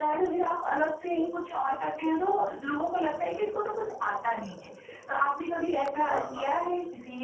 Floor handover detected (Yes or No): No